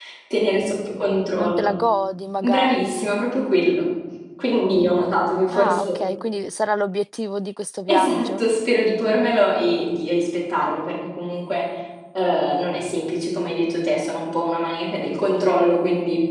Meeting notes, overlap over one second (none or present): none